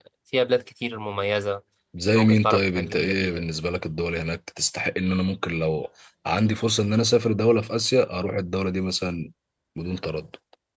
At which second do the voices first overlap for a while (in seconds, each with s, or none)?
2.1 s